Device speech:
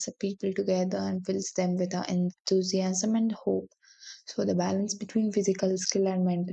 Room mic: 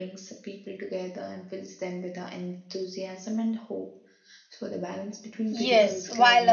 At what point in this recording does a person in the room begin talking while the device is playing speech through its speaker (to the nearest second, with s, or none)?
6 s